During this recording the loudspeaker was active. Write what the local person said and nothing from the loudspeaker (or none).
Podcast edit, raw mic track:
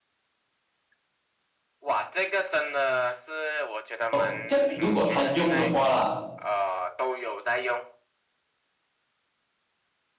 哦，这样如果他用的话啦，